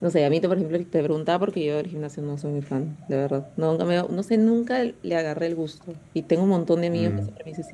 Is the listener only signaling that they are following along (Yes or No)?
Yes